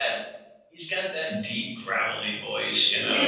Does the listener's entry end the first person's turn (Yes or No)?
Yes